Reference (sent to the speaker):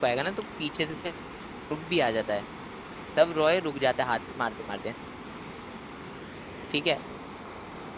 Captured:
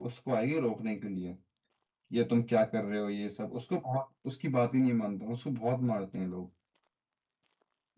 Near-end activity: present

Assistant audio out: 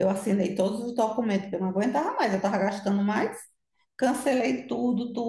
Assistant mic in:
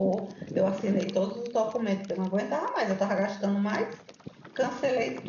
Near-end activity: none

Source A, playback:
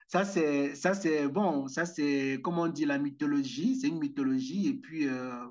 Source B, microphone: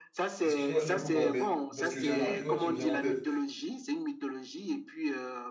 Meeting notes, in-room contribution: present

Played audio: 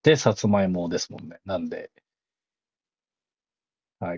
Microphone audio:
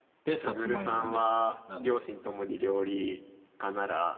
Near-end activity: present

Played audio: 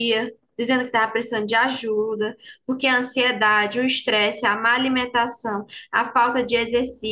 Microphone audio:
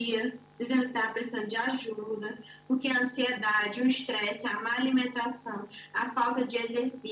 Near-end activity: none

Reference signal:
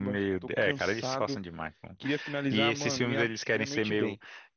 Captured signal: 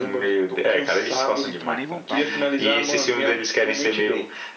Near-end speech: present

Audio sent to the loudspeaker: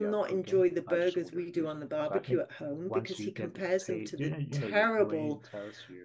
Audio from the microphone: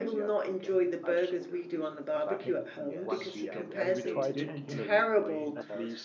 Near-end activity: present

